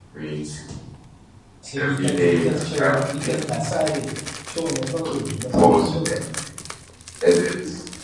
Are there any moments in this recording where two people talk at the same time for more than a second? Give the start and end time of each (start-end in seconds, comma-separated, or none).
1.8-3.5